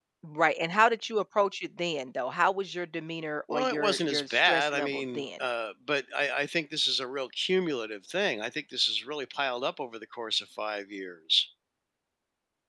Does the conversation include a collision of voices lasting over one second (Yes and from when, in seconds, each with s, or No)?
Yes, from 3.5 s